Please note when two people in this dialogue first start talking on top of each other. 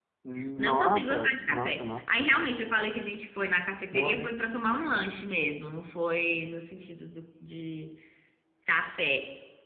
0.6 s

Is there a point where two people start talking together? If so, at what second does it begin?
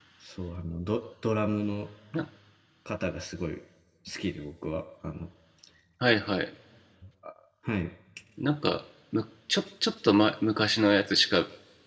none

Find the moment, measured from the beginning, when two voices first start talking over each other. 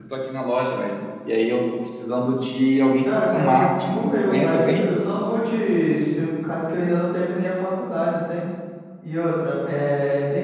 3.0 s

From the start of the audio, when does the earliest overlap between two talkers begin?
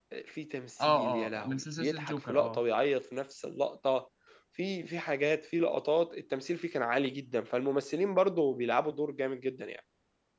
0.8 s

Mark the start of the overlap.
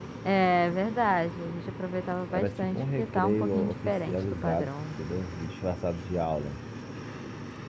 2.3 s

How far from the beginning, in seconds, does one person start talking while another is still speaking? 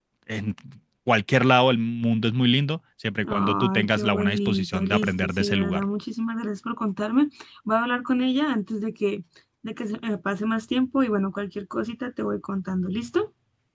3.2 s

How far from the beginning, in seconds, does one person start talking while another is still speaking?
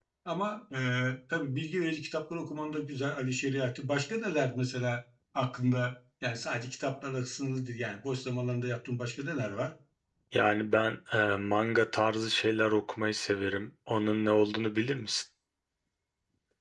none

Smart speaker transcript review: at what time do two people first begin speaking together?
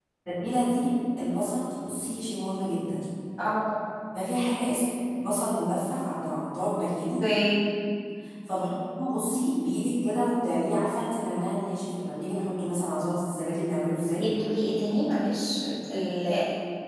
none

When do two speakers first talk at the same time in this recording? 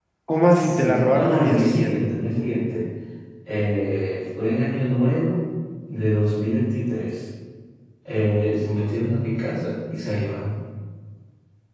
0.5 s

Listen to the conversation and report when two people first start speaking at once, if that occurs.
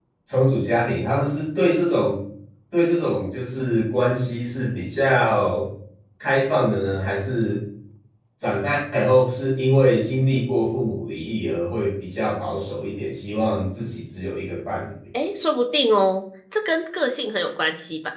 none

